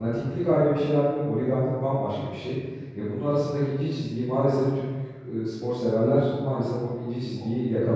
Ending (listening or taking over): taking over